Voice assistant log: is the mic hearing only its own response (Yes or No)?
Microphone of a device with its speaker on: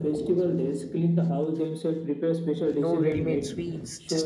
No